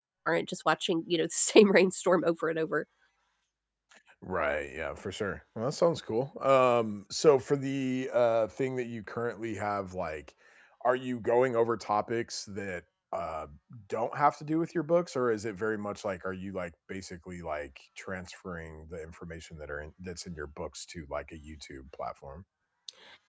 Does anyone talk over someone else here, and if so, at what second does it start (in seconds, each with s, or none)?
none